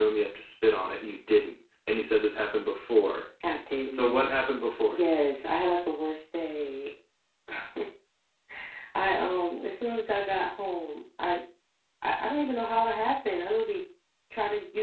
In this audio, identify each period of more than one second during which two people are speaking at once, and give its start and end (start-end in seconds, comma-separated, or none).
none